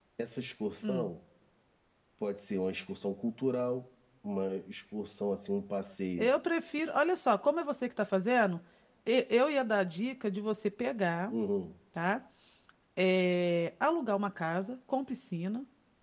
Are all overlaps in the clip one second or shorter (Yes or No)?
Yes